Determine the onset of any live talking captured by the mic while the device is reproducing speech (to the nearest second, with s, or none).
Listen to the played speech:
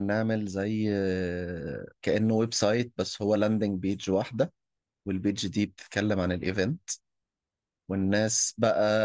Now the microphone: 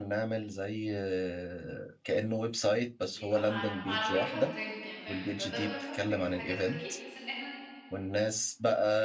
3 s